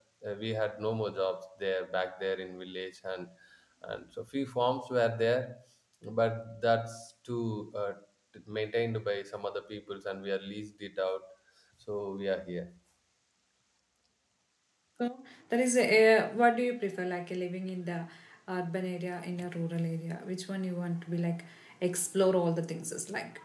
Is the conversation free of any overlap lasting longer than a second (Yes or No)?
Yes